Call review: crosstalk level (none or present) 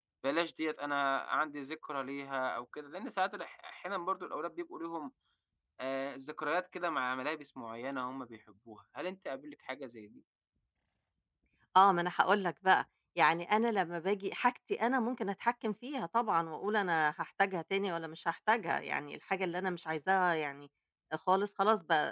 none